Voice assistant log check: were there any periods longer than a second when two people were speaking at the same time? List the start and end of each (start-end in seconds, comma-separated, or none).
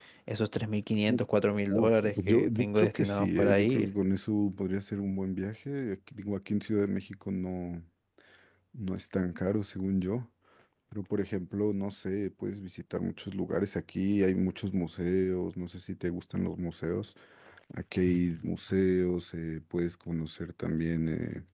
1.7-3.9